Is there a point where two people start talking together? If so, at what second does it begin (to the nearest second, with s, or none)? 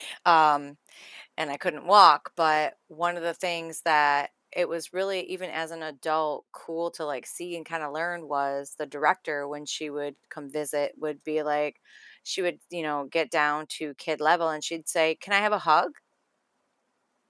none